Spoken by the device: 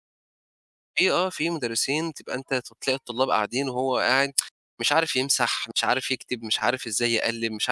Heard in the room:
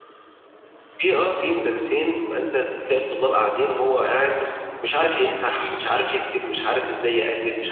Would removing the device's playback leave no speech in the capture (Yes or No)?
Yes